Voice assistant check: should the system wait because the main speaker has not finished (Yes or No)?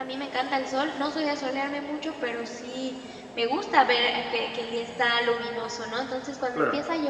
Yes